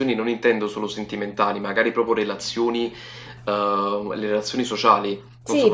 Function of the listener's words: taking over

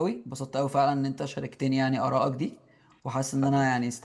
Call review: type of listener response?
listening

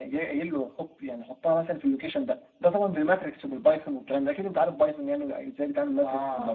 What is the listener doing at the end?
taking over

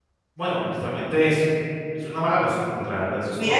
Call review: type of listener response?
taking over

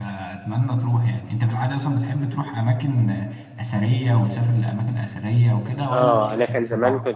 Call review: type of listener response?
taking over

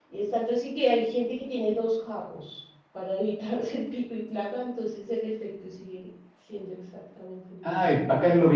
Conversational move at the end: taking over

